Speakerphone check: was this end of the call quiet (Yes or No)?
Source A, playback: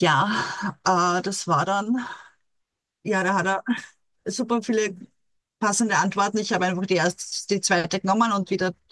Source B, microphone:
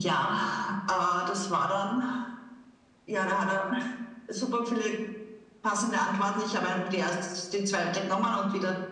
Yes